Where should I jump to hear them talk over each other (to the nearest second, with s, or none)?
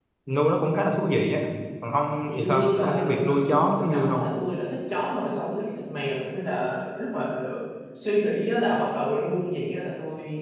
2 s